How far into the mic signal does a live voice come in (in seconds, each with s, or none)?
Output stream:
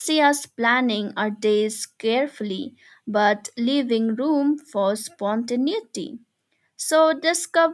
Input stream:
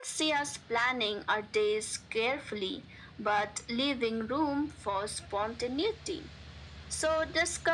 none